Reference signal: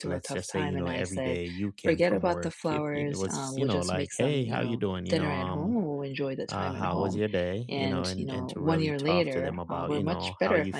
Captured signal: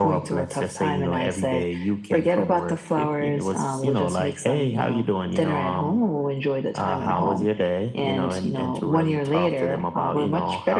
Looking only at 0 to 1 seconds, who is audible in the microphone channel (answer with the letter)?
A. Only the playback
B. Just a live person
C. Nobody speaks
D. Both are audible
A